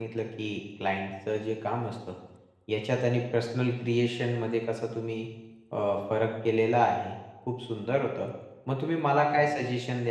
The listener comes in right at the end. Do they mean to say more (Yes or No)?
No